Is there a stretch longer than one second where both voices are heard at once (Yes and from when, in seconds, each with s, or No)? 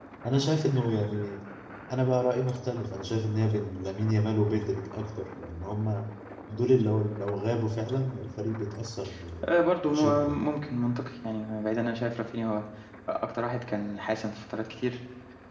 No